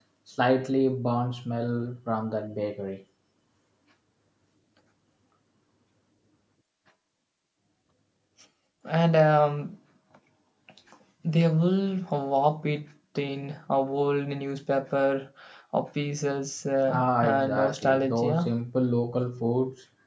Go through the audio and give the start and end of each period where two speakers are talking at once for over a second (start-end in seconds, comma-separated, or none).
16.9-18.5